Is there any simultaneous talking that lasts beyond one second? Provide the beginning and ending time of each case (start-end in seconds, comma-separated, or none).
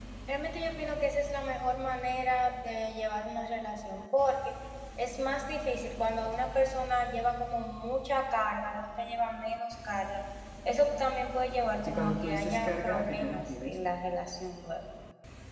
11.8-13.8